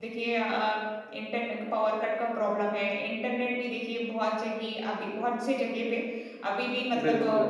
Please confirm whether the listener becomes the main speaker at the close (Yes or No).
No